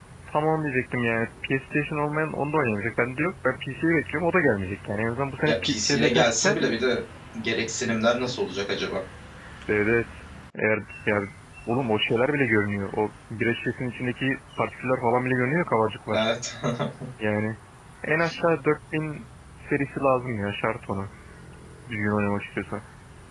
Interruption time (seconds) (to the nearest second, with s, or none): 5 s